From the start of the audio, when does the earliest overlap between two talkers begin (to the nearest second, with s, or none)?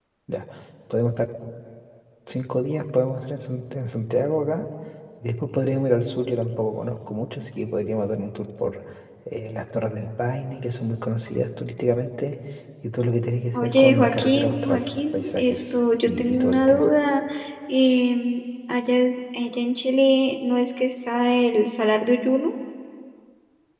14 s